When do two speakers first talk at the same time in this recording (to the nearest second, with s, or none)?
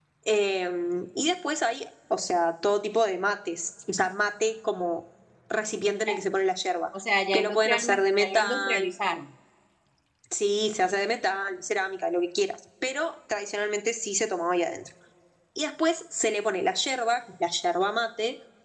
7 s